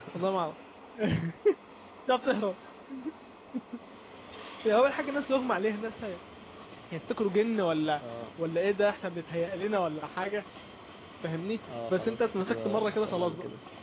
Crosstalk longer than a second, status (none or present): present